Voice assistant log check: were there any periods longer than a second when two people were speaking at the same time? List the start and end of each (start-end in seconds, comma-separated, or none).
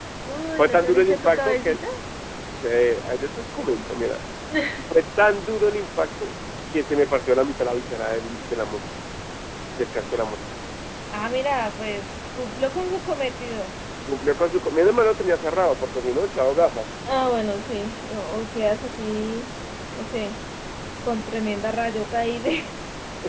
0.6-1.8